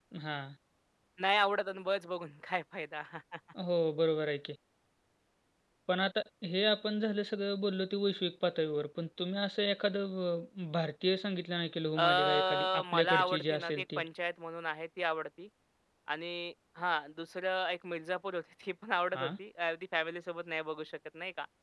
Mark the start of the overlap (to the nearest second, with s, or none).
12 s